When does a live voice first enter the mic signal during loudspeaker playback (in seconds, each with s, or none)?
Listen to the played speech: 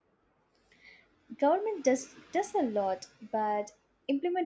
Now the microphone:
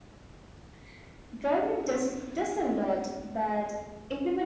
none